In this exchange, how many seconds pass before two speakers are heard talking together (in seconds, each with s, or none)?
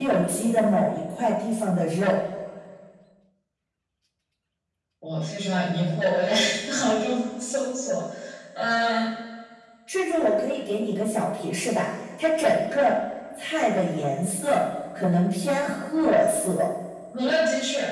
none